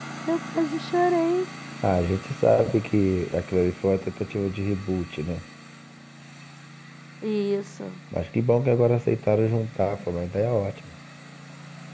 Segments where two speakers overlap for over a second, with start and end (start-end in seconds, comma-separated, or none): none